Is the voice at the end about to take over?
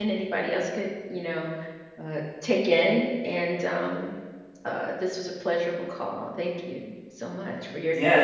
Yes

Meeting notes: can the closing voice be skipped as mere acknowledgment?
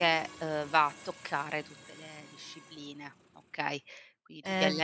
No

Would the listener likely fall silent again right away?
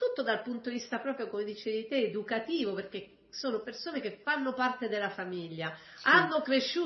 Yes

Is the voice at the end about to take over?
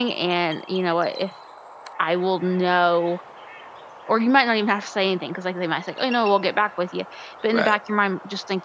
No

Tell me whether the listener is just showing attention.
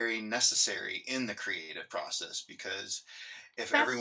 Yes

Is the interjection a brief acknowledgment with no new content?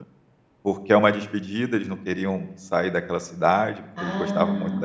Yes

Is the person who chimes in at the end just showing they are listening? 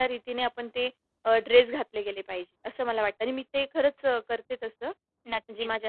No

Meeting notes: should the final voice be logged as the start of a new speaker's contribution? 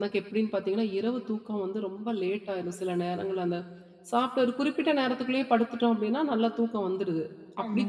No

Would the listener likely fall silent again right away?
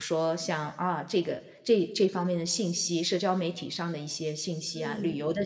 Yes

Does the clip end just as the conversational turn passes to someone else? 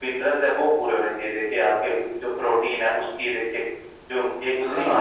Yes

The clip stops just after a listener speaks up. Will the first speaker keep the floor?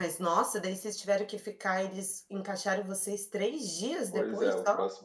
No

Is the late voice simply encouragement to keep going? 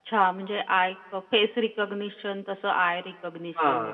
No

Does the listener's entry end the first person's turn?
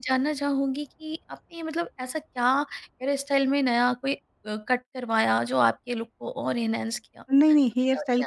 Yes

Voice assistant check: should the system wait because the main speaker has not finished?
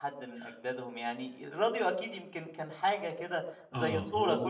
No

